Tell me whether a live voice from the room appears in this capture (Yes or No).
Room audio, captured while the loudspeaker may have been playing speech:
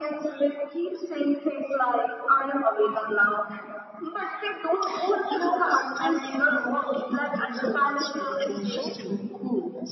Yes